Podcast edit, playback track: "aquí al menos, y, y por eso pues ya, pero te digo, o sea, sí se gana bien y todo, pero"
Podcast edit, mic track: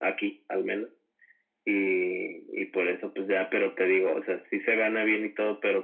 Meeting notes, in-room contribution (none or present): none